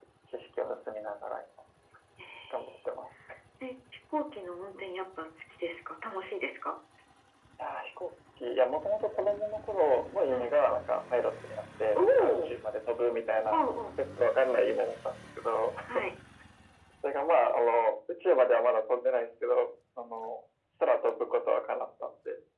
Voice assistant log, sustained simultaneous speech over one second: none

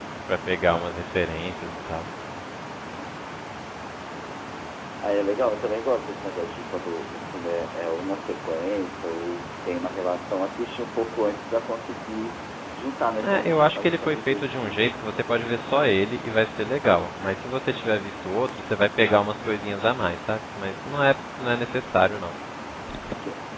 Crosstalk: present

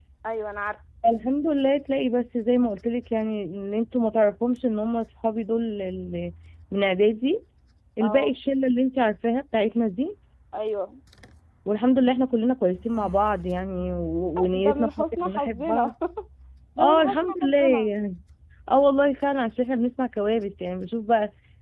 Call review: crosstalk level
present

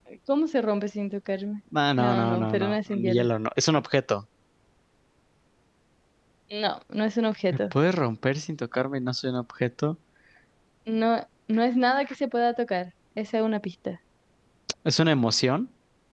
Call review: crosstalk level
present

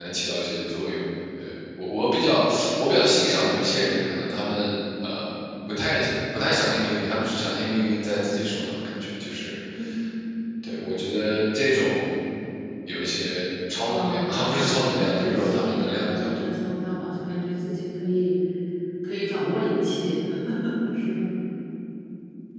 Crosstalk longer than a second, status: present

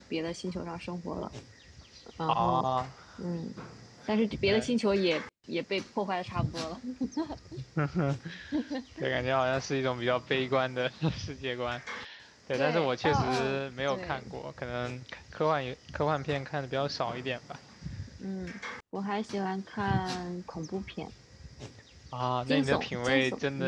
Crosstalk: present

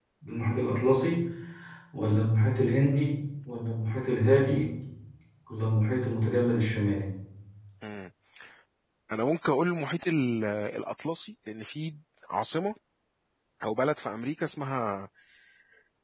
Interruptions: none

